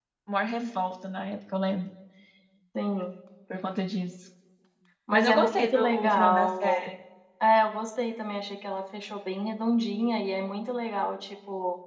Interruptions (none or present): present